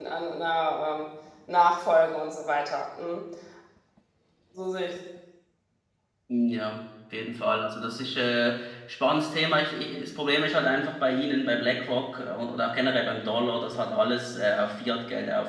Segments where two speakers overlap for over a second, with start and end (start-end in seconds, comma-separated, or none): none